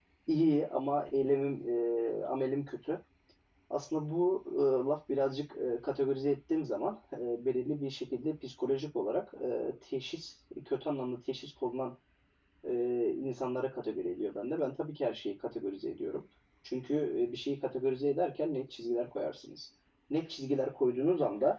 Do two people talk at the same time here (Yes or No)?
No